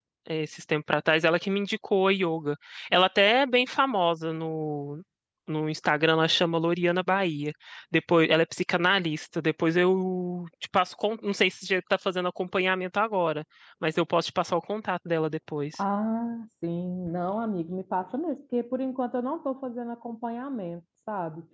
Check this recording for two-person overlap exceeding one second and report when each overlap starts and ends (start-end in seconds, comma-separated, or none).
none